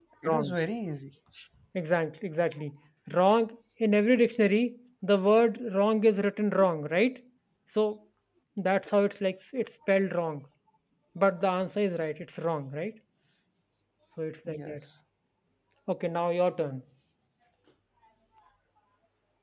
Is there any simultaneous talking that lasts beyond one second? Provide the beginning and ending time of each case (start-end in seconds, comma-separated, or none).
none